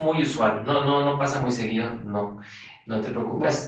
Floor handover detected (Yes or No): Yes